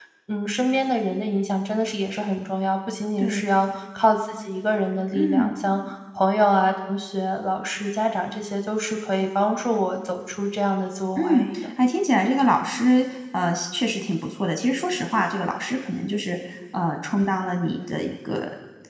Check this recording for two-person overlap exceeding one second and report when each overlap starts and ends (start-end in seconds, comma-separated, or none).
none